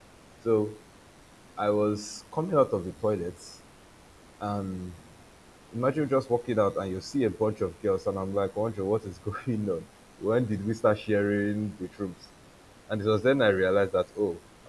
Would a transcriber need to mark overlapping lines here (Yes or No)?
No